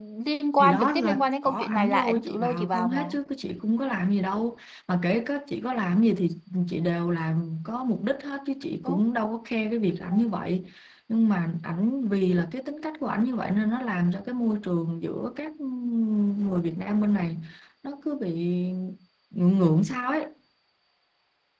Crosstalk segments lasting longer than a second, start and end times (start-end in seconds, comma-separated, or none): 0.6-3.1